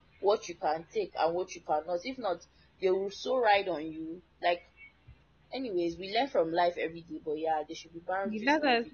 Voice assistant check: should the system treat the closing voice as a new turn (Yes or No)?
Yes